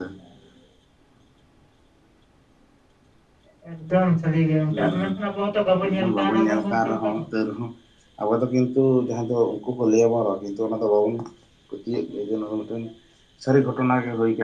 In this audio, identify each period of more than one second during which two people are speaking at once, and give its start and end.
5.8-7.2

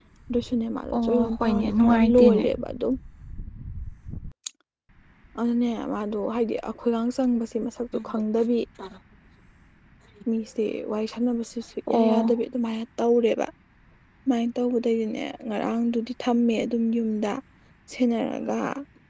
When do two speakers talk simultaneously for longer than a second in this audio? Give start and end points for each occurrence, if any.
1.0-2.4

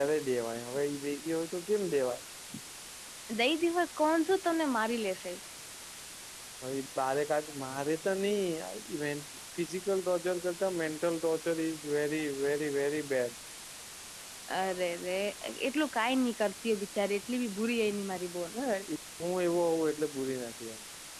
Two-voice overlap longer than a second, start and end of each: none

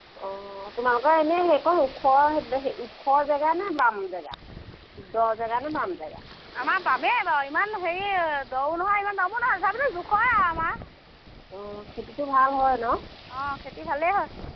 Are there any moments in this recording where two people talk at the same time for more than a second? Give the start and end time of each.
none

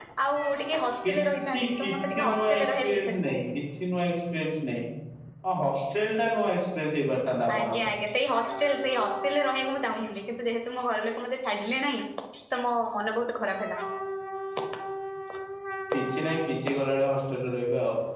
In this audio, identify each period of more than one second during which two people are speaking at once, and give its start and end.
1.1-3.3

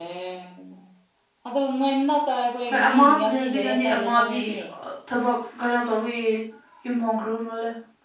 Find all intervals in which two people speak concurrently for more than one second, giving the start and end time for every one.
2.7-4.4

